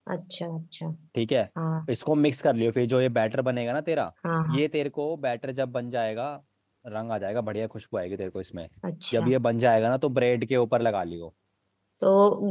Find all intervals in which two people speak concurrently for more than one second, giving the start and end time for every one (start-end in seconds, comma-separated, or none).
none